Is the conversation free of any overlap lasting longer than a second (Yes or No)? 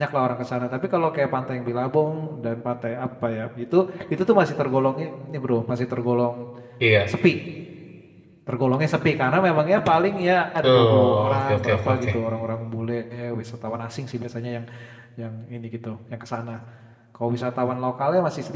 No